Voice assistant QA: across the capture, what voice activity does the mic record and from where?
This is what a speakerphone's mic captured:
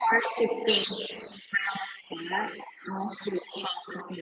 echo only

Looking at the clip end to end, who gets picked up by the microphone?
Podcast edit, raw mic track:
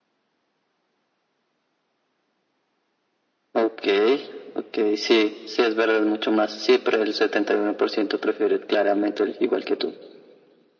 echo only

